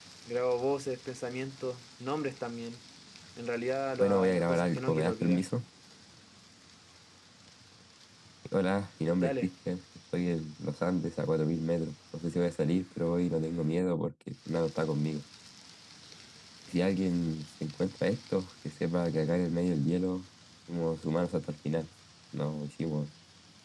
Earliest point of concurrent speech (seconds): 4.0 s

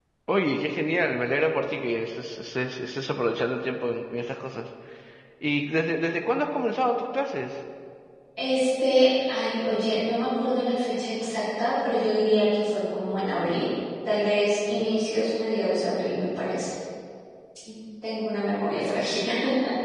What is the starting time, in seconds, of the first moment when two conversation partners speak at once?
none

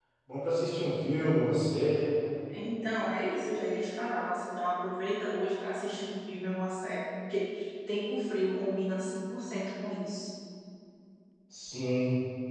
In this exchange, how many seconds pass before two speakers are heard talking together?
none

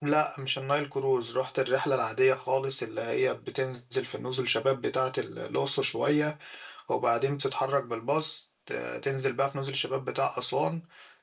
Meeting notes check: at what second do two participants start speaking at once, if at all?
none

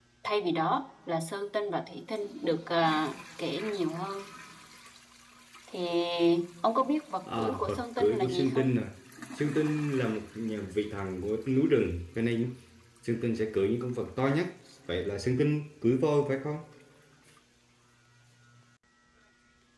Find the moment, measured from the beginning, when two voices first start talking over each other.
7.4 s

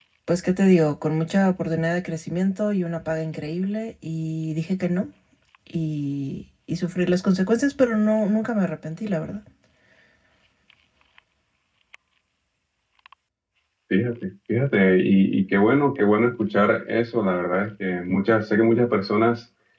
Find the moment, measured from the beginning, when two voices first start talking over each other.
none

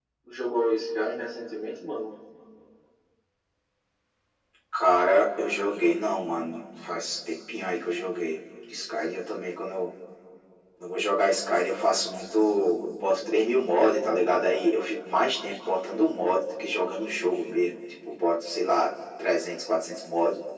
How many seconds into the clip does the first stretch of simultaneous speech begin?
none

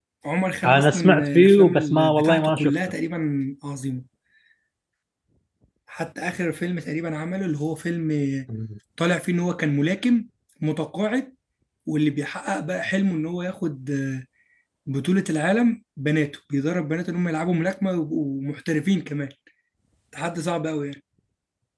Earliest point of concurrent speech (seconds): 0.6 s

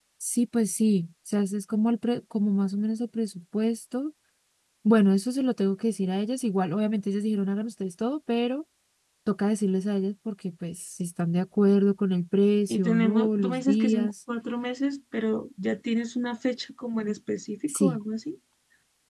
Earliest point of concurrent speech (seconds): 12.7 s

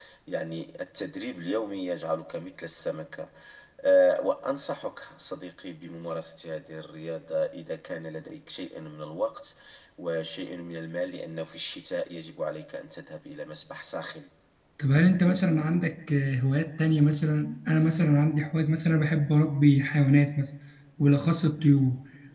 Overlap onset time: none

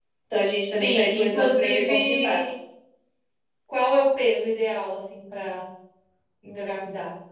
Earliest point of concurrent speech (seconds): 0.6 s

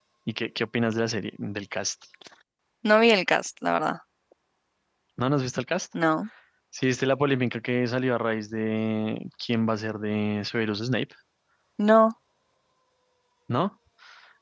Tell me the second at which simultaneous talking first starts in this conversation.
none

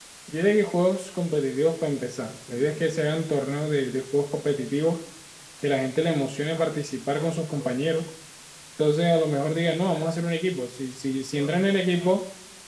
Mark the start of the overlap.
none

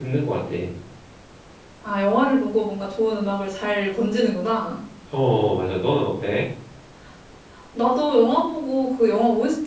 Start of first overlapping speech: none

